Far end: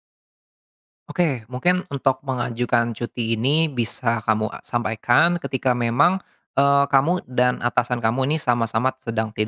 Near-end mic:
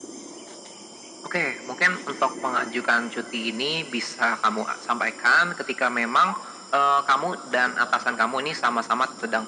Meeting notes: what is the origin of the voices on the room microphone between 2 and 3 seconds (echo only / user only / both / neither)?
echo only